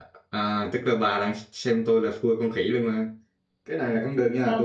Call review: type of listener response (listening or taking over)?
listening